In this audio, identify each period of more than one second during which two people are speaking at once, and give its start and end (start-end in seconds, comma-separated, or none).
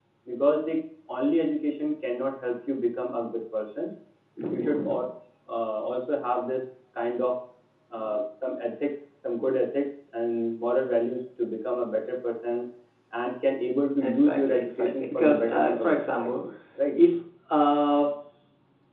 14.0-16.3